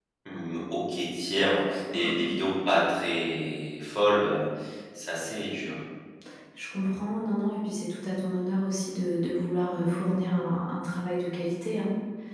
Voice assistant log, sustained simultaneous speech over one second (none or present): none